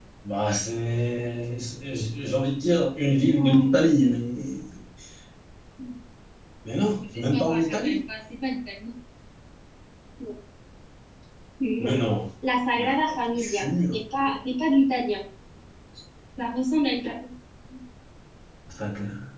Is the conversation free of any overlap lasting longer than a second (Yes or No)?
No